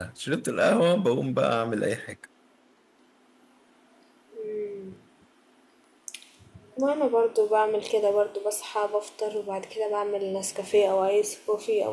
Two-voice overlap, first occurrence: none

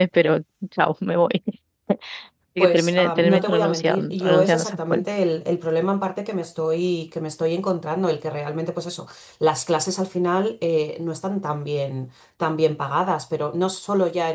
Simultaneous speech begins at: 2.6 s

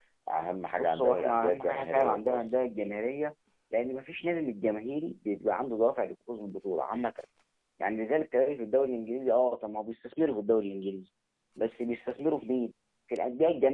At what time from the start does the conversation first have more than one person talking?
0.8 s

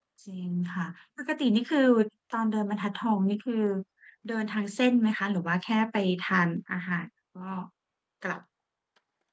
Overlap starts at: none

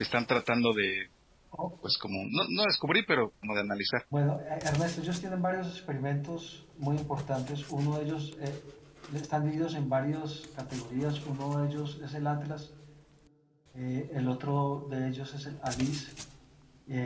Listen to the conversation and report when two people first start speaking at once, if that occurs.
none

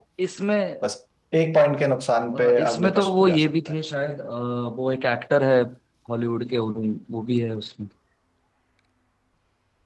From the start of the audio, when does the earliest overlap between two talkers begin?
2.3 s

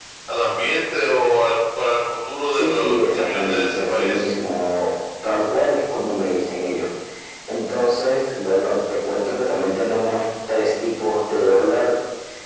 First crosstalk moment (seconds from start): 2.5 s

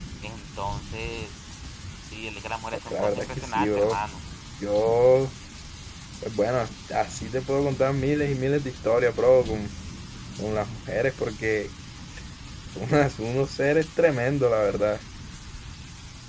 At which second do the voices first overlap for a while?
2.7 s

